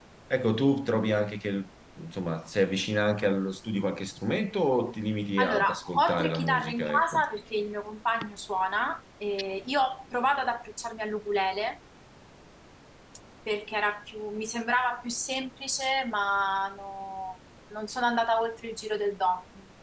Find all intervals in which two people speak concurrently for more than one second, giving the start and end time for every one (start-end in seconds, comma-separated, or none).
5.4-7.2